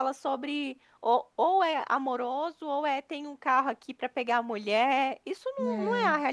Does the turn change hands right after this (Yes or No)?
No